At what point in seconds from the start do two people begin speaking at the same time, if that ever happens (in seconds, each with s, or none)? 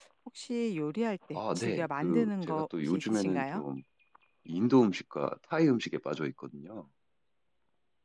1.3 s